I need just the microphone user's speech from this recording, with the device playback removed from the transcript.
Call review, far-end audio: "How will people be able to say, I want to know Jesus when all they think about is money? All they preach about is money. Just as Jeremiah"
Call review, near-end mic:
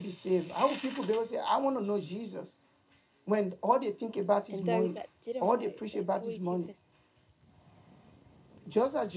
and those that didn't vote, those 42%

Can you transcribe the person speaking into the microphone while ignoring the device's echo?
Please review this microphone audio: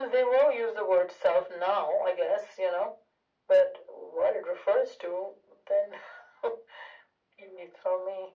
none

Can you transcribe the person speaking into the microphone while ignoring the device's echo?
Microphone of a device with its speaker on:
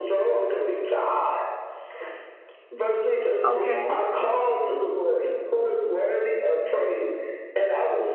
Okay.

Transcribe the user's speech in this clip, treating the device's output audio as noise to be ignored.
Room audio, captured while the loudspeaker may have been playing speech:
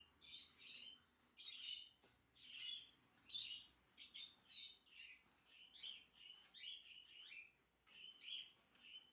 none

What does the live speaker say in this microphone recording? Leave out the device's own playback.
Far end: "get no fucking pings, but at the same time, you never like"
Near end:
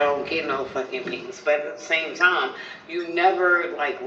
none

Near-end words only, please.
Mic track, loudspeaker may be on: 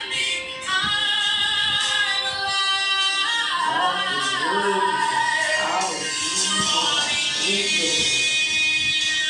God, you're worthy, God. Hallelujah, God. Thank you, Lord.

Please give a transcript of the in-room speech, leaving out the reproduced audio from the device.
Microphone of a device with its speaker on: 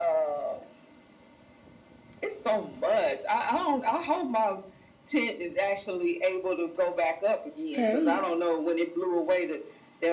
Hey.

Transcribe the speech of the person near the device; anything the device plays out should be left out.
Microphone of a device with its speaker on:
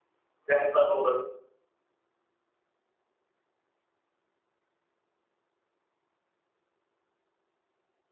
that level of,

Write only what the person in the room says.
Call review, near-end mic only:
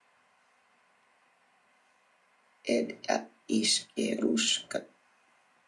ed at ishkerushka

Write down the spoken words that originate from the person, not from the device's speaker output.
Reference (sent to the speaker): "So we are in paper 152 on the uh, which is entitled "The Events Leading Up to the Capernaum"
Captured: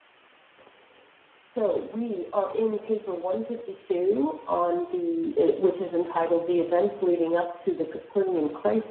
none

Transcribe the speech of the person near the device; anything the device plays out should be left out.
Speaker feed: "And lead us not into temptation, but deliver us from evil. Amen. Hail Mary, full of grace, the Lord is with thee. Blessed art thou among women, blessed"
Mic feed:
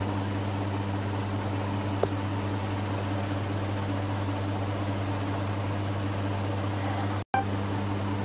none

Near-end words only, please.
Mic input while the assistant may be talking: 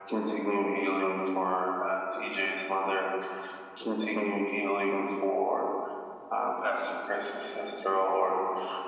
none

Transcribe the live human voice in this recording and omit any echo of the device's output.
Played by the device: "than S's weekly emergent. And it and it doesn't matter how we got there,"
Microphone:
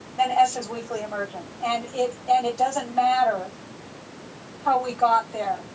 none

